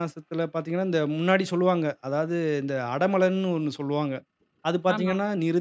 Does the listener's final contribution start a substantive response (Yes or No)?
No